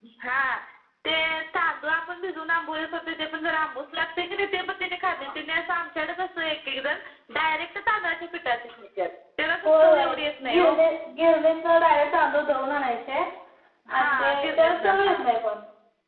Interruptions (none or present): present